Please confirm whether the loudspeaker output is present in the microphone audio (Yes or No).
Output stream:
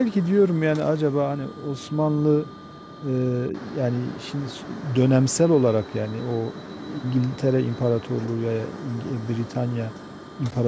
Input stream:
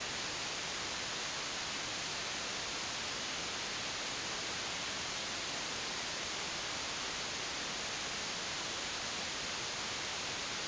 No